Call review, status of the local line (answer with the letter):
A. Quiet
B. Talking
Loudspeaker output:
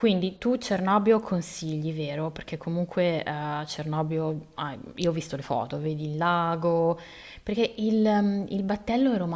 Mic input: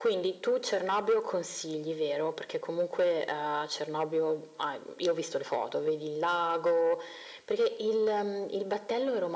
A